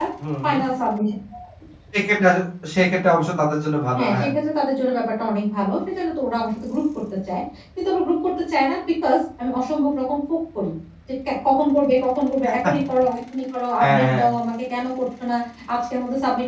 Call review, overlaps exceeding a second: none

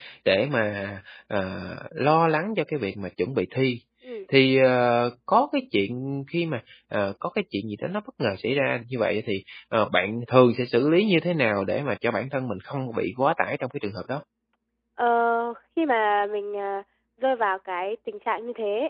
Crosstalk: none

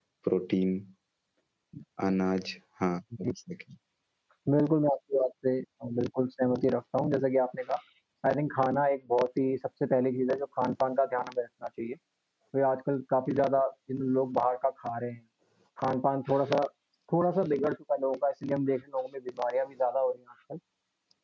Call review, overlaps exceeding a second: none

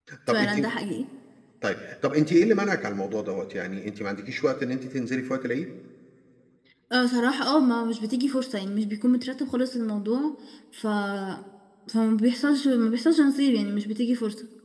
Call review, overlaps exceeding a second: none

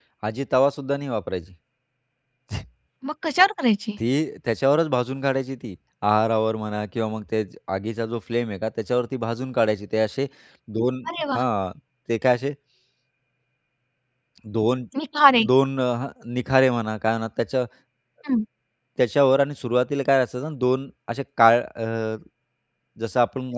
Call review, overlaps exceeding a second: none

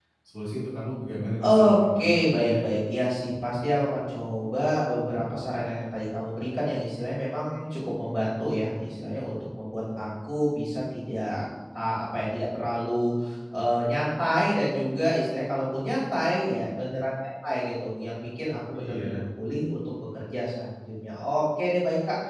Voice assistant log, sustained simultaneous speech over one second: present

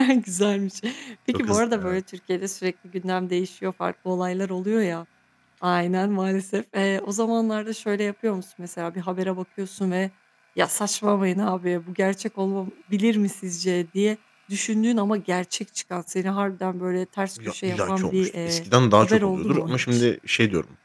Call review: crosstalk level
present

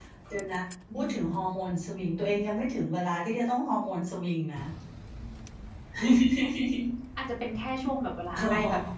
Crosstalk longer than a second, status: none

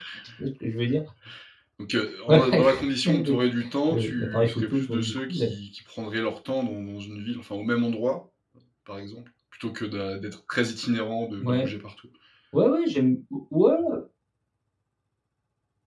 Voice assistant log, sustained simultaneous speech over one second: present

